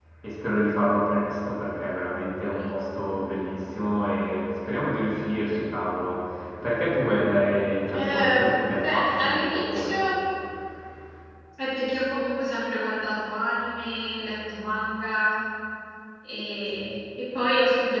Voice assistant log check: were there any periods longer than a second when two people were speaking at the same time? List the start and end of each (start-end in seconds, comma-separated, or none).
8.8-10.1